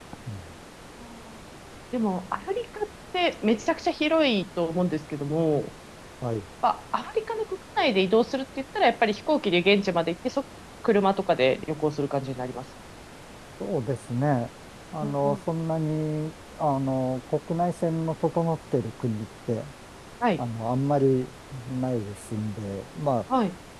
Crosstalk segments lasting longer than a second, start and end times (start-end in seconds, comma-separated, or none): none